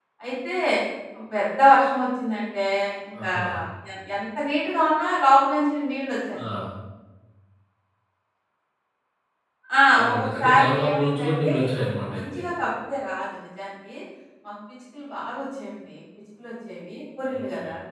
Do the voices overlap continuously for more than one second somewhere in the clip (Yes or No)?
Yes